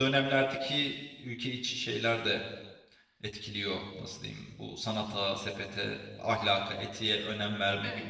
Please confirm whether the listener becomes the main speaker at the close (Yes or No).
No